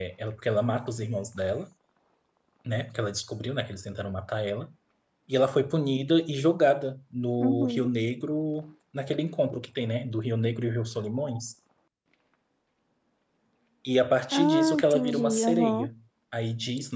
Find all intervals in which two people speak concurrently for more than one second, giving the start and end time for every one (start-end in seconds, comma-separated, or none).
14.3-15.9